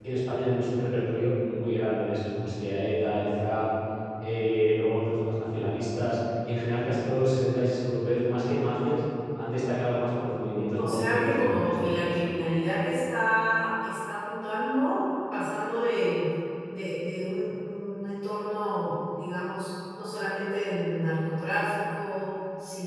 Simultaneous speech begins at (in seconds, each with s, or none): 10.8 s